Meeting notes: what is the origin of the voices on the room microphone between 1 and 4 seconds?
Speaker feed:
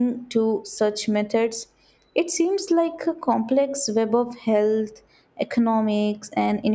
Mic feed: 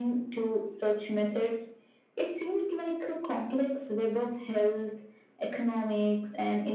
echo only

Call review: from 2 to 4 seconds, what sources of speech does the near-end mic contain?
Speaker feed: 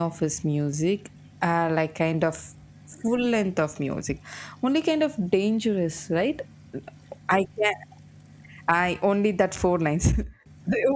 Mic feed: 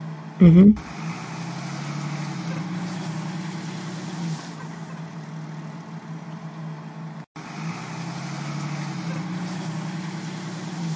neither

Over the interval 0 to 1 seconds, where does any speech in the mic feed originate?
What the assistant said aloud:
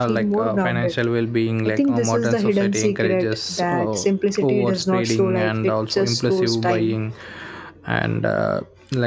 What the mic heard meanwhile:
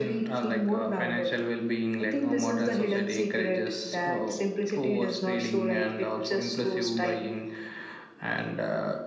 echo only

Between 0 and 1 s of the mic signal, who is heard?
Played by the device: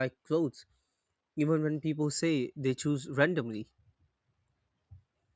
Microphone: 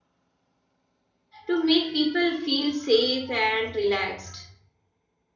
neither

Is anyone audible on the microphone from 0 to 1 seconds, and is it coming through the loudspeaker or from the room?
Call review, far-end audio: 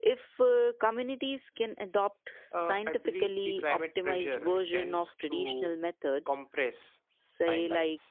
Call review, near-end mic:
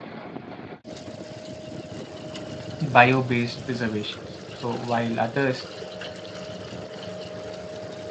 neither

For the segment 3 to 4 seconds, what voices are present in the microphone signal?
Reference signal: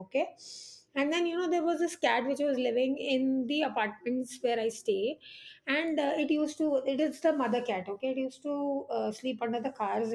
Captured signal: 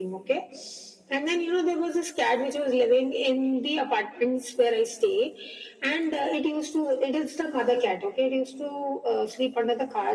echo only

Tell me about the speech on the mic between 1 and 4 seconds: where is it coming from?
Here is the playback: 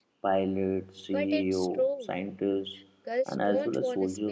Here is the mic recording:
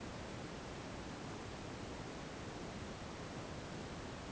neither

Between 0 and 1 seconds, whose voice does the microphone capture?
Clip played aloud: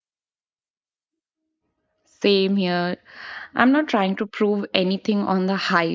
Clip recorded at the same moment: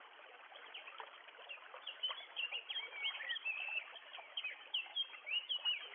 neither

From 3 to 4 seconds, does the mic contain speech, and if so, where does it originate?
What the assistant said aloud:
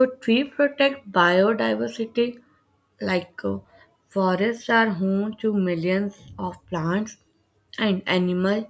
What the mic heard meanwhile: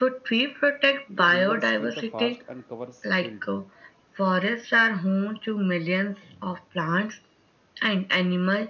both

